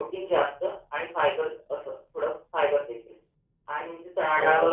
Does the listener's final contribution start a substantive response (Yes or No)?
No